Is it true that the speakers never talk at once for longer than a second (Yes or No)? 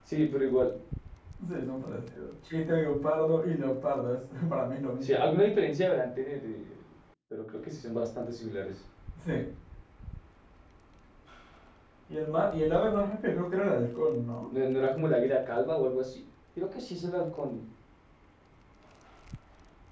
Yes